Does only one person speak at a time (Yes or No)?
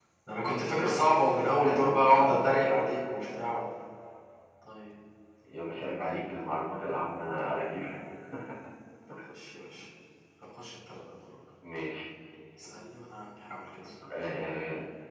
No